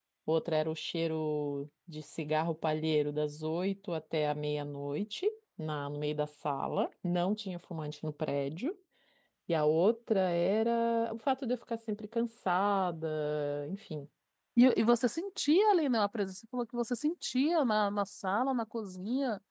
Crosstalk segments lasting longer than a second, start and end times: none

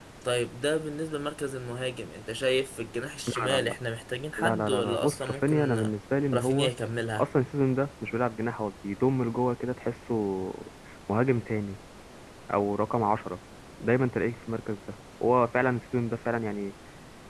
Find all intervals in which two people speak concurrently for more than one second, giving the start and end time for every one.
4.4-5.9

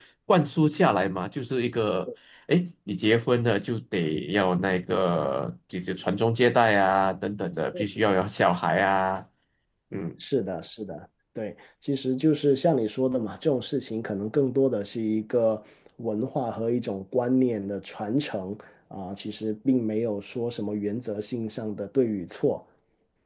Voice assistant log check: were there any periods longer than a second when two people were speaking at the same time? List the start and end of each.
none

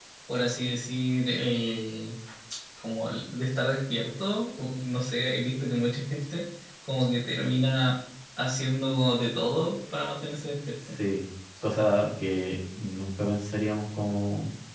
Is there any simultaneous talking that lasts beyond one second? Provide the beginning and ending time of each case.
none

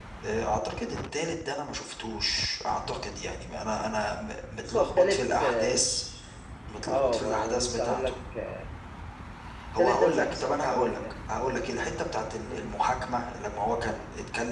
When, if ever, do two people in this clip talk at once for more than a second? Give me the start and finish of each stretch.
4.7-6.0, 6.9-8.2, 9.8-11.0

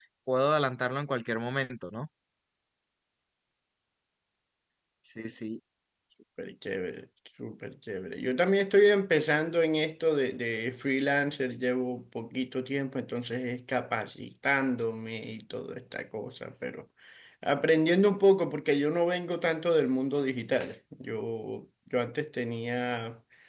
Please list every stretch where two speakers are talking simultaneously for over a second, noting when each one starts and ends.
none

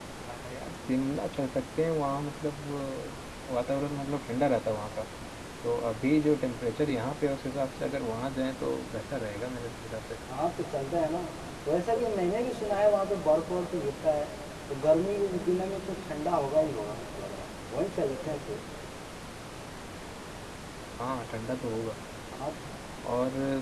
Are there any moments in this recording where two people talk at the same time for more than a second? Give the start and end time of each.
none

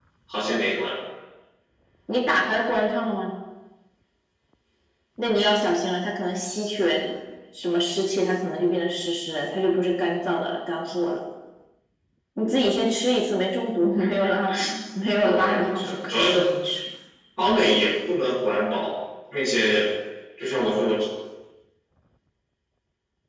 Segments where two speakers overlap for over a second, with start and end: 15.2-16.4

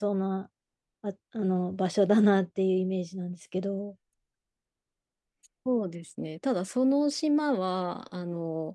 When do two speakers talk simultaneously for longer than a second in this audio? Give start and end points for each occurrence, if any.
none

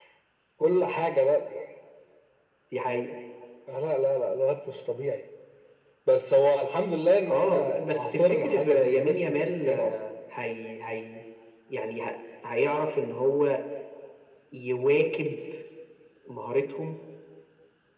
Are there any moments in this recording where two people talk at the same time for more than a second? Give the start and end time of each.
7.3-10.0

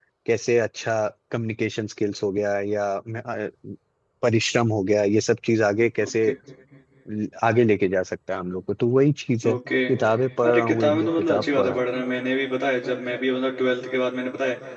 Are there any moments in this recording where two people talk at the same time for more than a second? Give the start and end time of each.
10.5-11.8

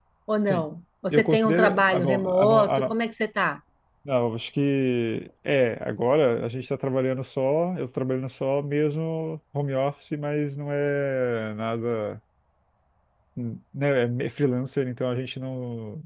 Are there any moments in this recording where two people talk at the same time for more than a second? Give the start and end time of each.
1.1-2.9

